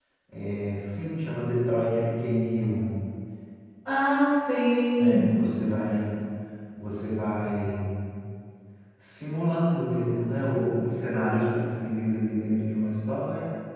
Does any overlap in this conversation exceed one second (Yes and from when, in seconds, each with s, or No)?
No